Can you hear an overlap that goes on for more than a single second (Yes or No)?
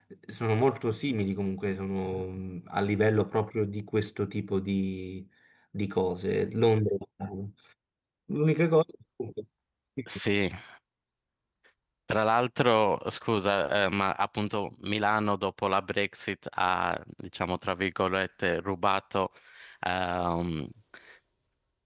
No